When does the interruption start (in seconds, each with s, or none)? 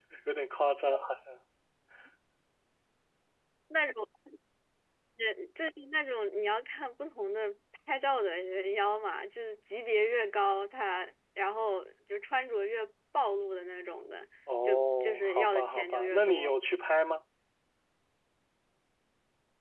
14.5 s